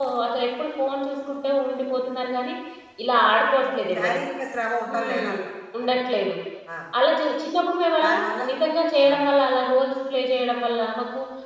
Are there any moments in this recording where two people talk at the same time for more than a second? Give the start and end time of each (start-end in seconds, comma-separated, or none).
none